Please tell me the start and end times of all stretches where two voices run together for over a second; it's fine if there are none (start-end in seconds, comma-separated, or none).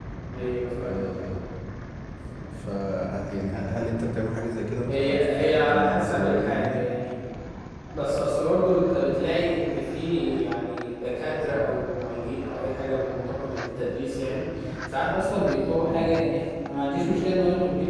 4.9-6.9